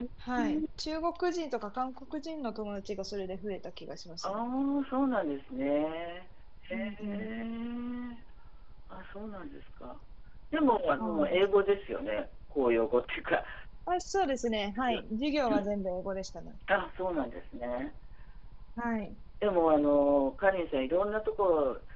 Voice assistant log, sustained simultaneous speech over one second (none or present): none